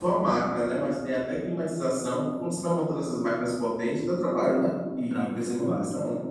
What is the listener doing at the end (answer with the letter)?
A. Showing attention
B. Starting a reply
B